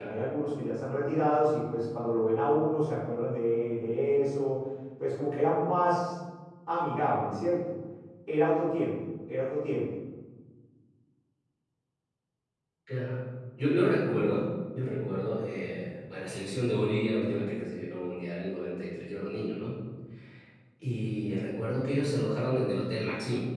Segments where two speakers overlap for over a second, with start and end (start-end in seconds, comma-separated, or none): none